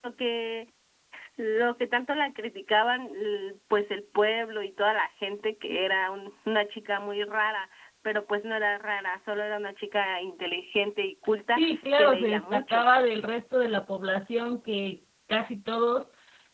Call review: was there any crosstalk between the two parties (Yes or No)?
Yes